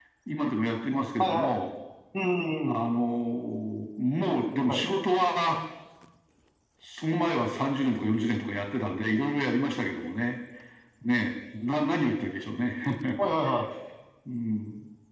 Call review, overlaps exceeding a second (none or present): none